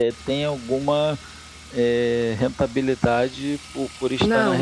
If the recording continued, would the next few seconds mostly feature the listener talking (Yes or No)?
Yes